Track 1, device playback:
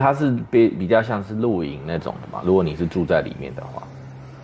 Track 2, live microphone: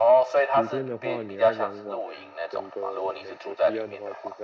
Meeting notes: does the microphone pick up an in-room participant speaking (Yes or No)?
Yes